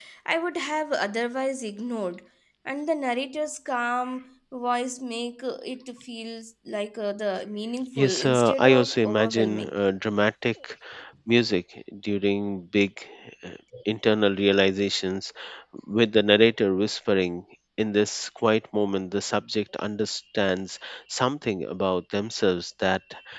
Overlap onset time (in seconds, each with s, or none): 8.0 s